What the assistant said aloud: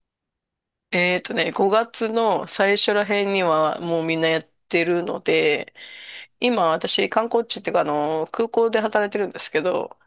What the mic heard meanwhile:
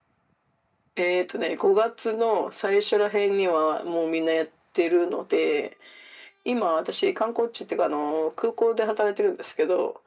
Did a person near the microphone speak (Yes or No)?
No